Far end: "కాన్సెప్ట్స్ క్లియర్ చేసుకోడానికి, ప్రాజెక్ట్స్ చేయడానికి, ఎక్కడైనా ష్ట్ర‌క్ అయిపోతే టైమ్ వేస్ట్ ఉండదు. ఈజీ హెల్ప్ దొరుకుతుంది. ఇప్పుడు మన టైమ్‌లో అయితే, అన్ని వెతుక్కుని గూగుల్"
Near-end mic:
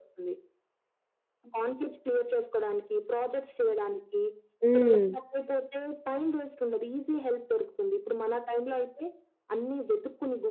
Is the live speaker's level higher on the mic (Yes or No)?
Yes